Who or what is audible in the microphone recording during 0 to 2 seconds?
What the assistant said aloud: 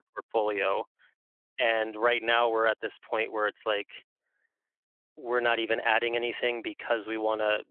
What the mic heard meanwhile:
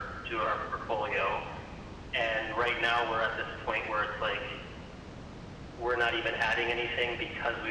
echo only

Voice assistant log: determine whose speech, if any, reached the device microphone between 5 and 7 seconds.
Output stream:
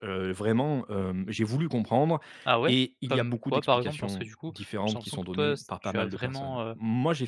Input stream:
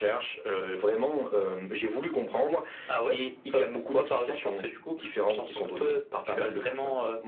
echo only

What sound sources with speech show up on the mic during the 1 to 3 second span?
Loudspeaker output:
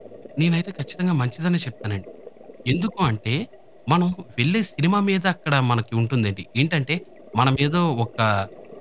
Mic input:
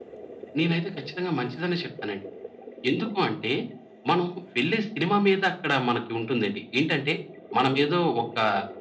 echo only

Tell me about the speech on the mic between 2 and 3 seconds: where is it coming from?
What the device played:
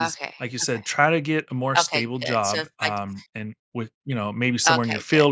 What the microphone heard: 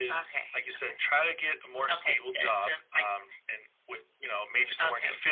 echo only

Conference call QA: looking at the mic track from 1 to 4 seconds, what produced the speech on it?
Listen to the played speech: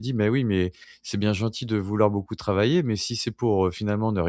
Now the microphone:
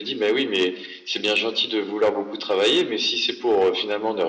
echo only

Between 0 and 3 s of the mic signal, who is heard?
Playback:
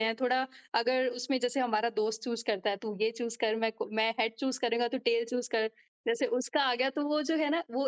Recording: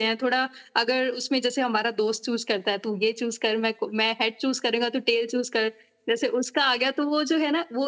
echo only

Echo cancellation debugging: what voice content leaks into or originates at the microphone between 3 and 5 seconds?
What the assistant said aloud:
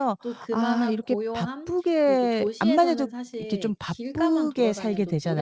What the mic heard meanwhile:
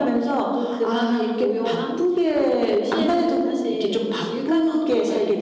echo only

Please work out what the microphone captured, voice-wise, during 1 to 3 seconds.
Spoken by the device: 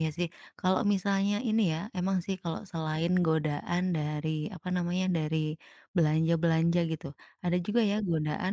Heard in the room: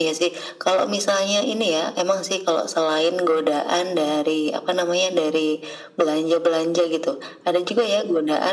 echo only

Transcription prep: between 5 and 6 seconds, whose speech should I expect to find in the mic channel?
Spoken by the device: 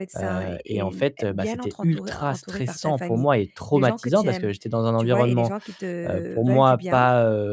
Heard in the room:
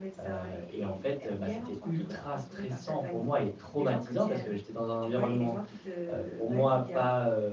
echo only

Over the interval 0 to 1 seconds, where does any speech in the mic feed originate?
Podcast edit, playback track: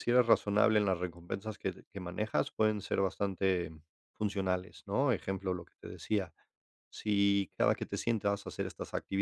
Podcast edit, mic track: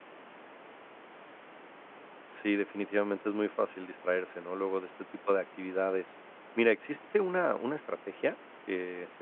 neither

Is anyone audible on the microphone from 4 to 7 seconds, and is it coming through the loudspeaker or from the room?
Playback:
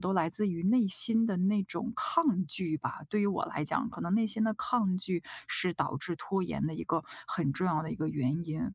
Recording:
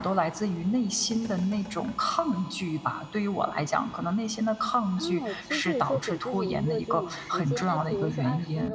both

